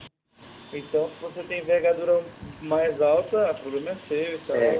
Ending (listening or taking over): taking over